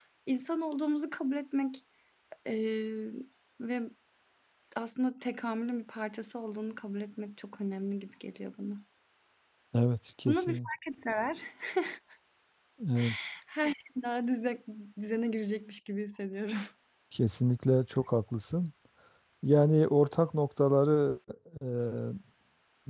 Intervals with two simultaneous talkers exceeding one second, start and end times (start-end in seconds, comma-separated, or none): none